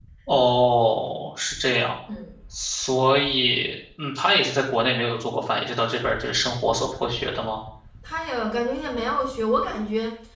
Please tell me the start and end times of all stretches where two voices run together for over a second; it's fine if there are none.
none

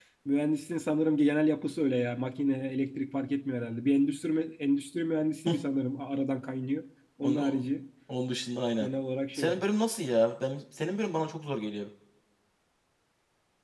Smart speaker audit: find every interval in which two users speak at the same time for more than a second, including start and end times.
none

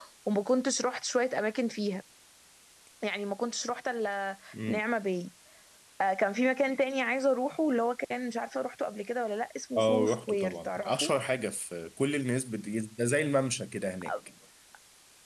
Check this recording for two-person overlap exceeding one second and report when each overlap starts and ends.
9.8-11.1

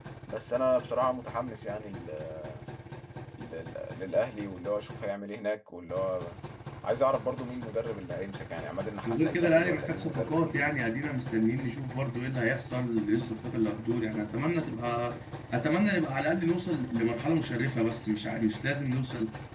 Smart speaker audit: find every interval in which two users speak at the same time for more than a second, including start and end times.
9.1-10.8

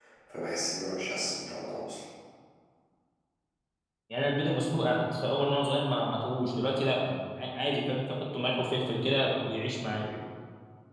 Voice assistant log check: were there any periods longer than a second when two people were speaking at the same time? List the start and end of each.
none

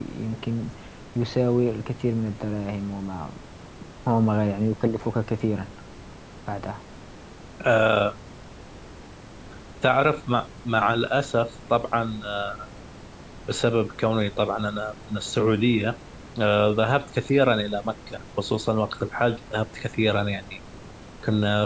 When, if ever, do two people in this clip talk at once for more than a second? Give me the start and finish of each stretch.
none

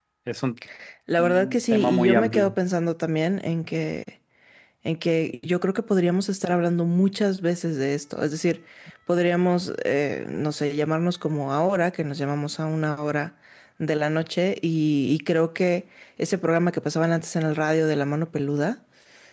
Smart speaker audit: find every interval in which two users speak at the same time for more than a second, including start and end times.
1.2-2.5

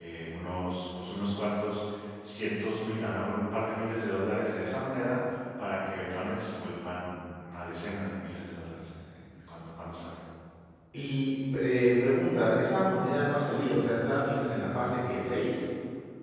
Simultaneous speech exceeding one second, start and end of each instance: none

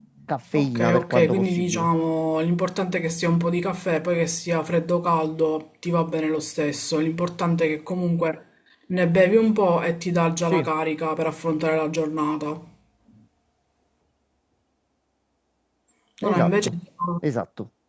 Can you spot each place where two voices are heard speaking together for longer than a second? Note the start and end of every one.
0.5-1.9

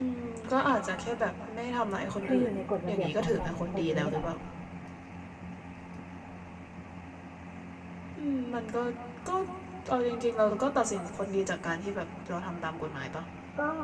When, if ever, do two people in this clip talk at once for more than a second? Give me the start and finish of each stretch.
2.2-4.2

